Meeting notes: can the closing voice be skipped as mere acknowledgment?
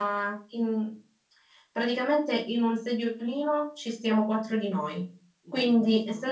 Yes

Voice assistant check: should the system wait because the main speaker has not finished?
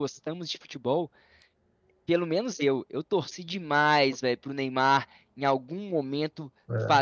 Yes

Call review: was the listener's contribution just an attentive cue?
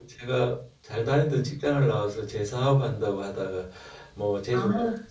Yes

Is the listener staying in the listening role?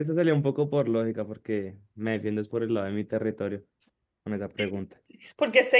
No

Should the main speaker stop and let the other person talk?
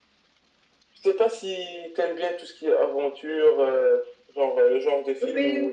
No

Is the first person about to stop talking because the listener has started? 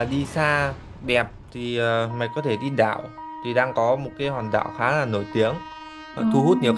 No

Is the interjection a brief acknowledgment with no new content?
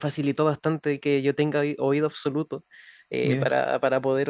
Yes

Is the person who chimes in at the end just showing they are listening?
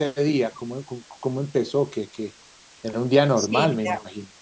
No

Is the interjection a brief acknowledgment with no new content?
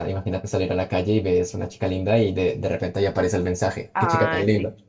No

